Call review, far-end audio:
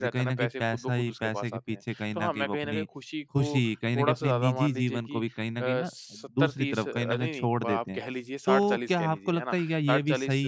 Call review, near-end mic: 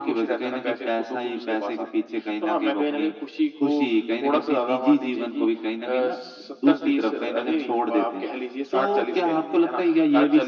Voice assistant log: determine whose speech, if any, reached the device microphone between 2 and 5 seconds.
echo only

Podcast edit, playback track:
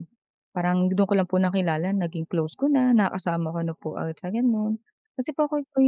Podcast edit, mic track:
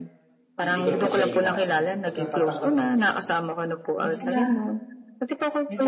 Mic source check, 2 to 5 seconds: both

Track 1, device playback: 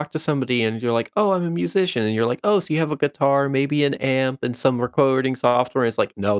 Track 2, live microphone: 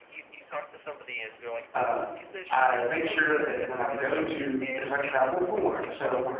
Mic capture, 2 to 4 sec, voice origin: both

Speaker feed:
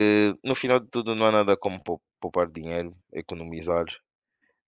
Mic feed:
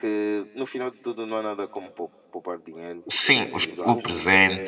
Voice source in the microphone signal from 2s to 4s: both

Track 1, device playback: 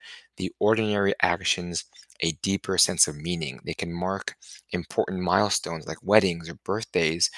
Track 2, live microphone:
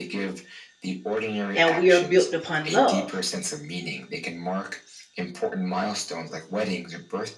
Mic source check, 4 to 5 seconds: echo only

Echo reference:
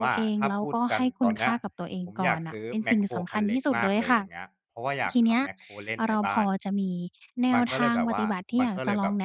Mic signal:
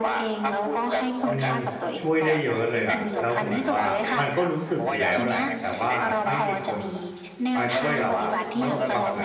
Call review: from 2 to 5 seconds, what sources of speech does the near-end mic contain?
both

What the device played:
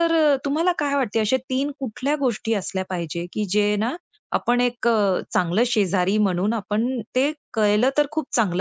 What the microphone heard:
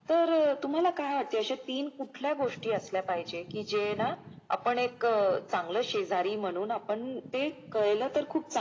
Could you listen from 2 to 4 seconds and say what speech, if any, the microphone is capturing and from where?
echo only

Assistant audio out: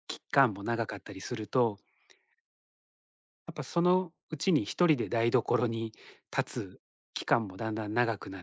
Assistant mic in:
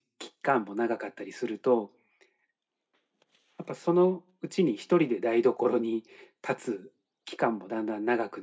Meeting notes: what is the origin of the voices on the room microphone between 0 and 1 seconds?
echo only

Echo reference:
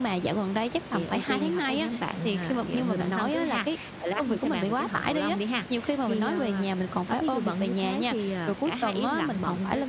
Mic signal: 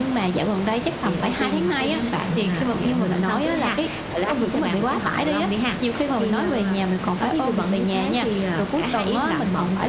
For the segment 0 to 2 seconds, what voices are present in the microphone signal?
echo only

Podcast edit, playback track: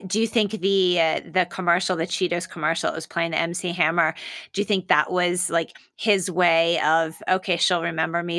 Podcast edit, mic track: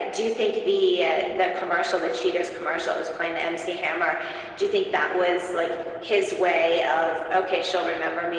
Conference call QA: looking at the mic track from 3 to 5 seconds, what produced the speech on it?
echo only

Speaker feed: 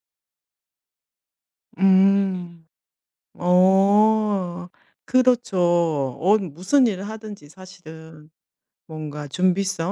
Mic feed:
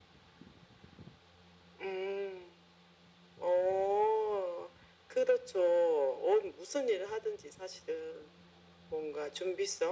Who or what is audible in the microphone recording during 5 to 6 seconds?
echo only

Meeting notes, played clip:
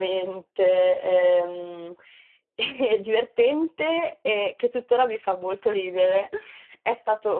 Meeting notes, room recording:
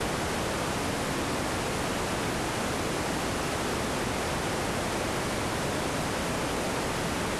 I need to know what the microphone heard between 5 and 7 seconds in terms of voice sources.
neither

